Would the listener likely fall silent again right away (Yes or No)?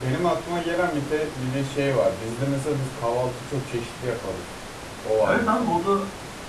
No